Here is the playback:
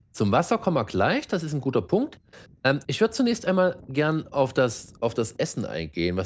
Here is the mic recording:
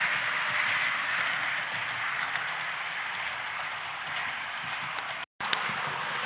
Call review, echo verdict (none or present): none